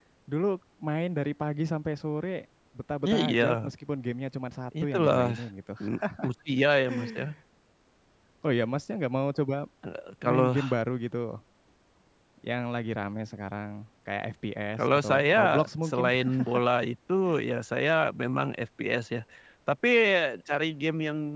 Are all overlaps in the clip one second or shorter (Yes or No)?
No